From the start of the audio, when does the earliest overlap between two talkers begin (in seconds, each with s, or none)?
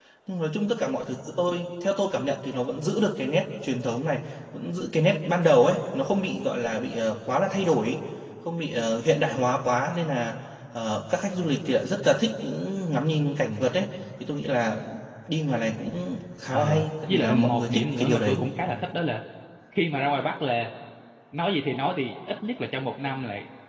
16.5 s